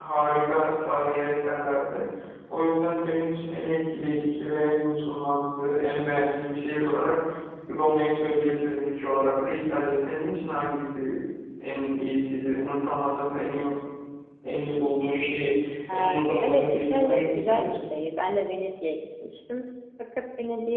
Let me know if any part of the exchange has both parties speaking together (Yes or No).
Yes